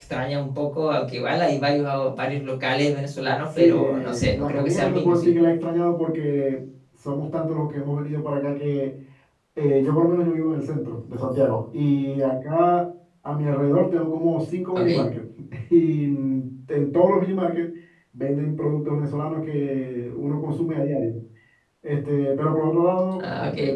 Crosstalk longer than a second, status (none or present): present